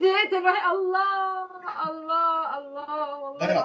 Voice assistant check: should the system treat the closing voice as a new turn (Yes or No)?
No